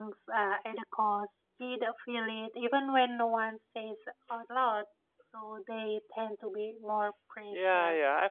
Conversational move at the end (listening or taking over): taking over